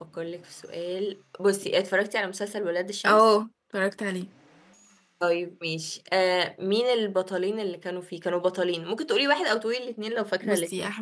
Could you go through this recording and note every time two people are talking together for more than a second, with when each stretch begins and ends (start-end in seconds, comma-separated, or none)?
none